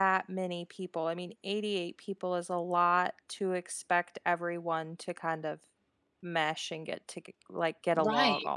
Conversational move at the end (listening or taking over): taking over